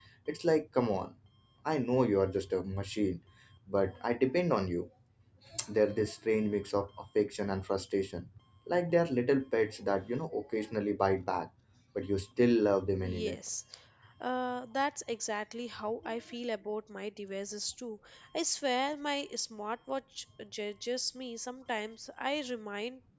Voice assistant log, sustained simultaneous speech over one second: none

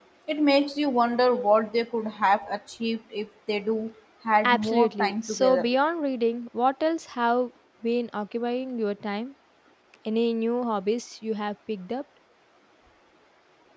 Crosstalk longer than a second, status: present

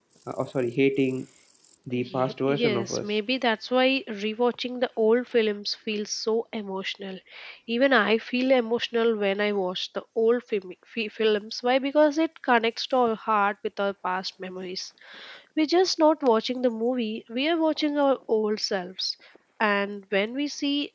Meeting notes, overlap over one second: present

